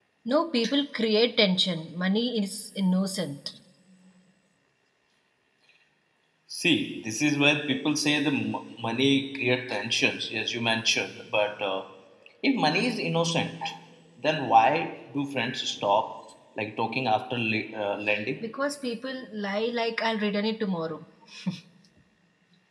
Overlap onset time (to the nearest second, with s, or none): none